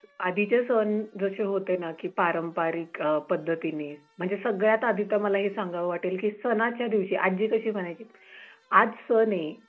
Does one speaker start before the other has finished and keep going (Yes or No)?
No